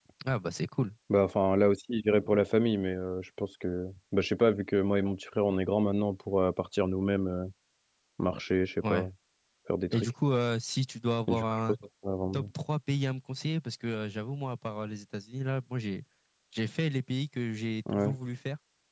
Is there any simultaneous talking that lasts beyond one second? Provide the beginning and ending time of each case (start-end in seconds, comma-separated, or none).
none